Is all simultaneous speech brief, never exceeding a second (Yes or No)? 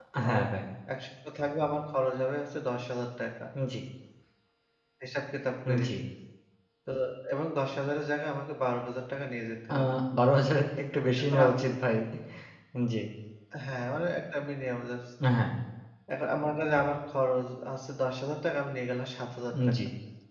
Yes